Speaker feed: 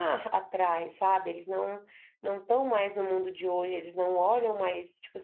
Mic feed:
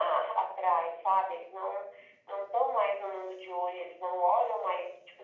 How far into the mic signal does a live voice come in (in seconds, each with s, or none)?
none